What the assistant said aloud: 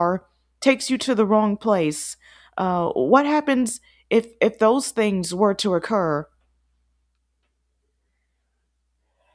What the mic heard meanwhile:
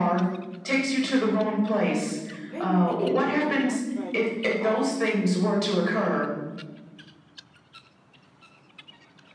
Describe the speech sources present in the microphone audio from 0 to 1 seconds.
echo only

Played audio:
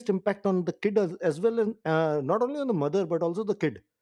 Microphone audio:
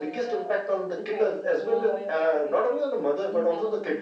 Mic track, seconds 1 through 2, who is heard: both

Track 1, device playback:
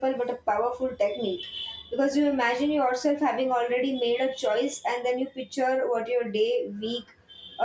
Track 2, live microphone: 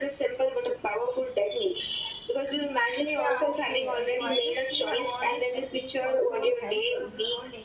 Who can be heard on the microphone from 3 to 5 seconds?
both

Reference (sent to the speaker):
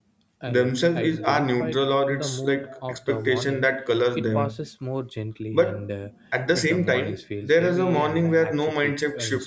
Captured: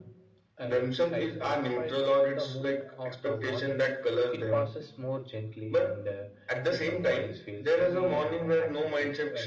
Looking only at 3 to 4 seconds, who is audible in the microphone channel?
echo only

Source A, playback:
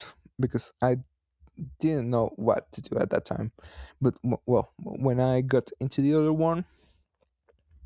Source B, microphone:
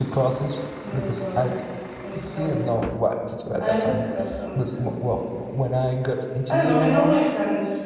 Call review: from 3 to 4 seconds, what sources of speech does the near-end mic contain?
both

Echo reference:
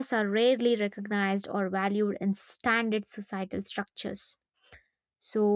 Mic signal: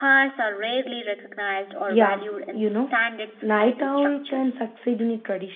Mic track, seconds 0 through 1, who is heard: echo only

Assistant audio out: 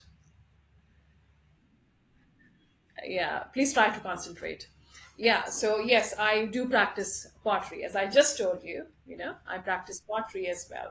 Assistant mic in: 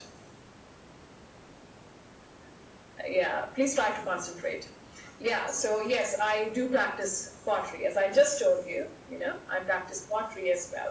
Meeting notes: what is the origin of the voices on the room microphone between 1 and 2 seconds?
neither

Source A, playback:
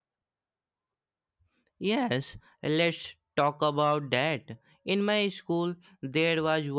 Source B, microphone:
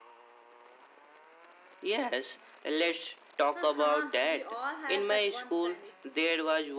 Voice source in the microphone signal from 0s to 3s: echo only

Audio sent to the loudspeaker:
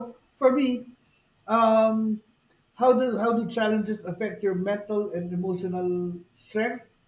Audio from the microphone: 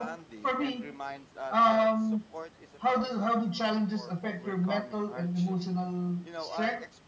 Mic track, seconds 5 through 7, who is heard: both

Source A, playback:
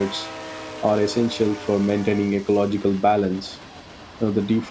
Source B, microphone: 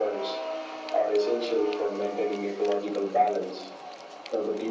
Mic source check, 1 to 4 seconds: echo only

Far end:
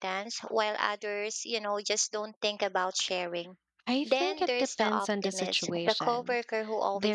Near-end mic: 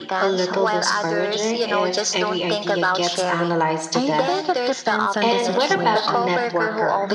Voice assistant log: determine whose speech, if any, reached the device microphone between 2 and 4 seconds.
both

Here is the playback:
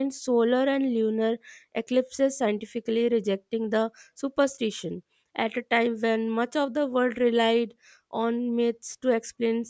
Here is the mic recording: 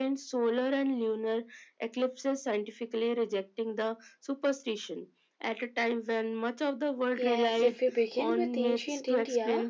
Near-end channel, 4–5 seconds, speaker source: echo only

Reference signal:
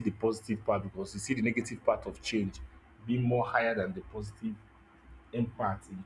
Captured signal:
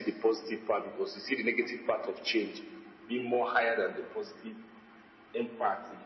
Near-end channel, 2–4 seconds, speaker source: echo only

